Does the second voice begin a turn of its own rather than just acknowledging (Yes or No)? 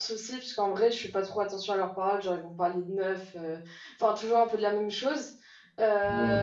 No